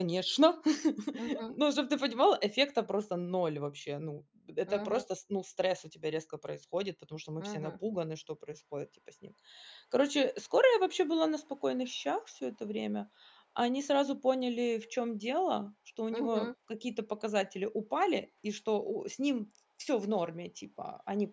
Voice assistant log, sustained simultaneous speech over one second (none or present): none